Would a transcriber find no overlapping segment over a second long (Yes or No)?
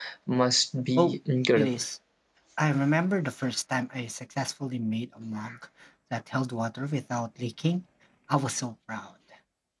Yes